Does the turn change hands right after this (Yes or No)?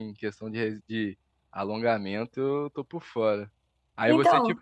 No